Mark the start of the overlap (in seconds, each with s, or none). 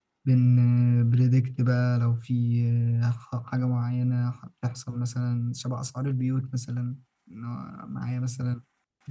none